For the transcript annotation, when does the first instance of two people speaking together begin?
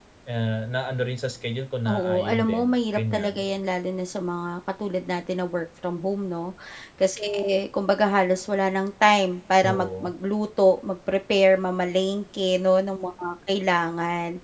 1.9 s

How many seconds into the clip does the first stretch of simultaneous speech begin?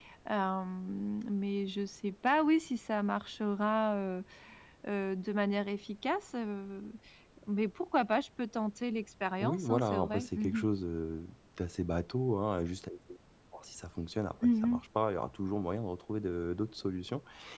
9.4 s

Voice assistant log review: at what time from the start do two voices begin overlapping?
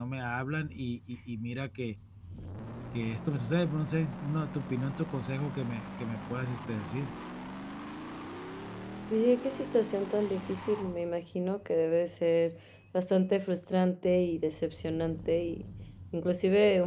none

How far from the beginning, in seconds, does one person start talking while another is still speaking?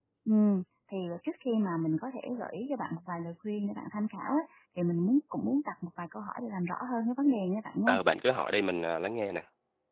none

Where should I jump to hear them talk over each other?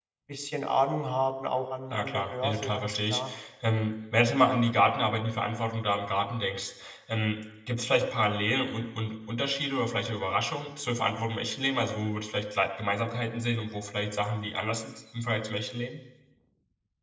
1.9 s

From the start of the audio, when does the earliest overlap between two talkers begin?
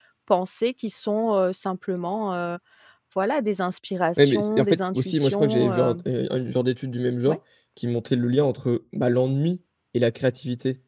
4.2 s

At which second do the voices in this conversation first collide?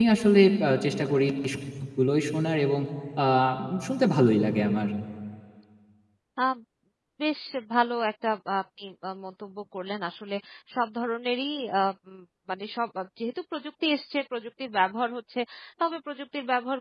none

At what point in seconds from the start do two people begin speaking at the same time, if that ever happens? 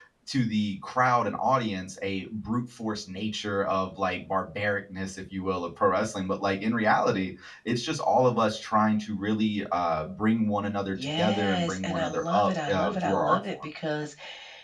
10.9 s

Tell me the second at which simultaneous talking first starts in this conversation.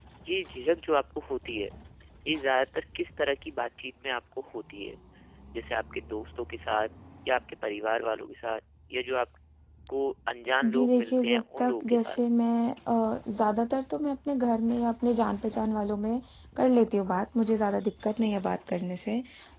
10.6 s

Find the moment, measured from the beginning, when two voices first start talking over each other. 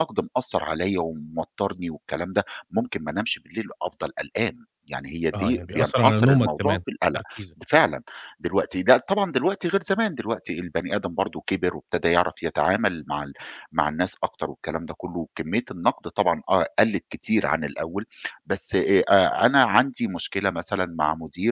5.3 s

